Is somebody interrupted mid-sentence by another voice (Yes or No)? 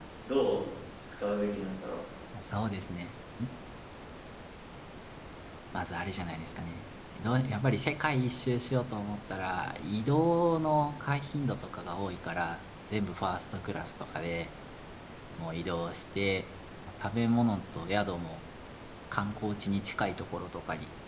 No